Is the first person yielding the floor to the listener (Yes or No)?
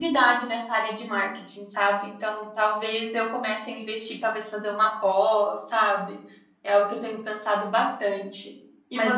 Yes